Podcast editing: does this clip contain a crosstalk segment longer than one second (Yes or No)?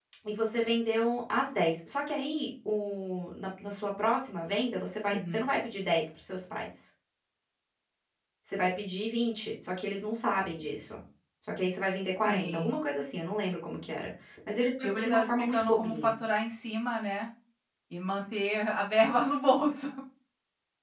Yes